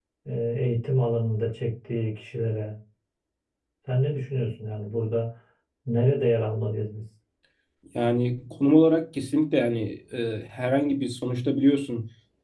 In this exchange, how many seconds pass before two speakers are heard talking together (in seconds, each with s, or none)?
none